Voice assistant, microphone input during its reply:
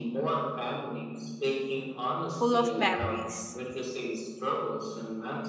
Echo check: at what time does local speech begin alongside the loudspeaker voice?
2 s

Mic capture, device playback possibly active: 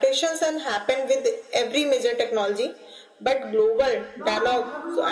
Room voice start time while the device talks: 4 s

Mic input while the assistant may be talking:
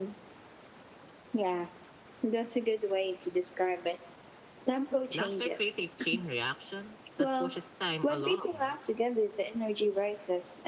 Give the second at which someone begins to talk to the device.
5 s

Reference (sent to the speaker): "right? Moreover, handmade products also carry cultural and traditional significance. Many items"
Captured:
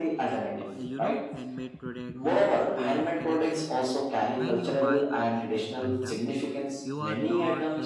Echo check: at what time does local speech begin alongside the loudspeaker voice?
0 s

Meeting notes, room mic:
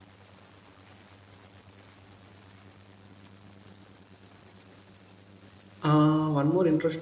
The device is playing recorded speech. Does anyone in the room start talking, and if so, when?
6 s

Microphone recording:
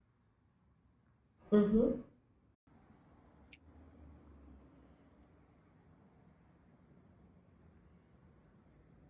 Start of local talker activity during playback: 2 s

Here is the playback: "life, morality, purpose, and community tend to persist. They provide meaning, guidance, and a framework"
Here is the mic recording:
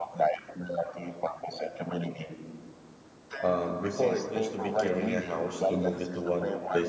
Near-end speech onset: 3 s

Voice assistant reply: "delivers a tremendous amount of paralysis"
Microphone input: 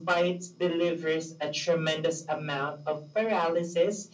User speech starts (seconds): none

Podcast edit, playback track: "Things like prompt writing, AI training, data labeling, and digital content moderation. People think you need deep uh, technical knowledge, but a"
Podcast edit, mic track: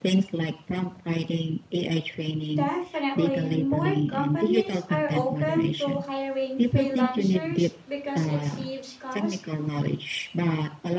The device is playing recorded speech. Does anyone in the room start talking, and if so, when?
3 s

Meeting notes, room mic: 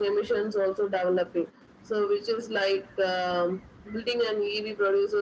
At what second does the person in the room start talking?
none

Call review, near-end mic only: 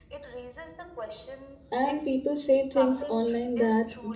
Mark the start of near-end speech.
2 s

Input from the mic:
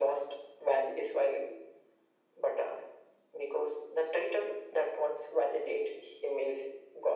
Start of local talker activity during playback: none

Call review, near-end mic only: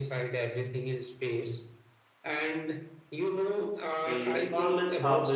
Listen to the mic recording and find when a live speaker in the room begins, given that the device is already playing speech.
4 s

